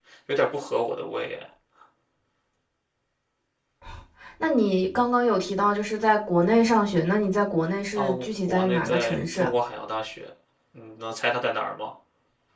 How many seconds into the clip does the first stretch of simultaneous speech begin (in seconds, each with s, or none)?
8.0 s